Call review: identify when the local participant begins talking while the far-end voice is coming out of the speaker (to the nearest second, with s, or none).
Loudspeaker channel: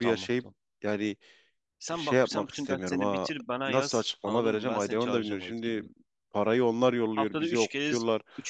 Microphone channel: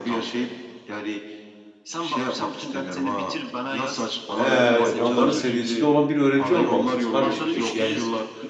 4 s